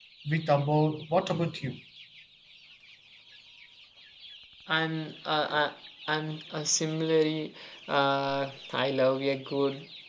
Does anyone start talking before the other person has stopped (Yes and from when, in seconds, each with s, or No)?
No